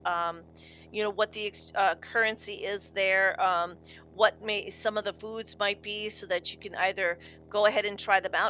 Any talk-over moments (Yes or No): No